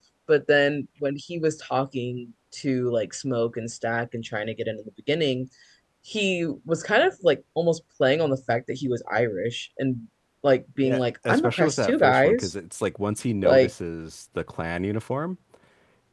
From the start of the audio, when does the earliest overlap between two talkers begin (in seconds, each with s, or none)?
10.8 s